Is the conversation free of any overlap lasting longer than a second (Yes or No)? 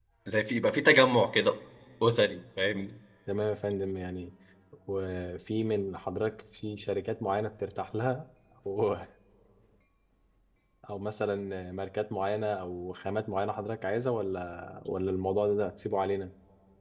Yes